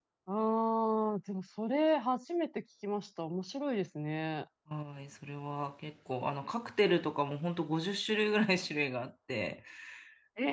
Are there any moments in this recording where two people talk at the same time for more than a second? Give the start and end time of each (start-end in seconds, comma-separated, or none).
none